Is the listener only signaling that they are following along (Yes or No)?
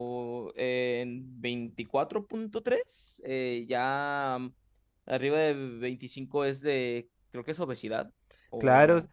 No